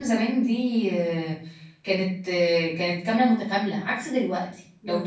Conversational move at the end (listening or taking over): listening